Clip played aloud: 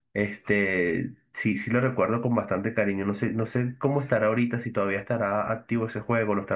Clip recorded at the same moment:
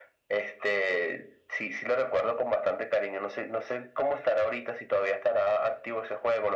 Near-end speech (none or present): none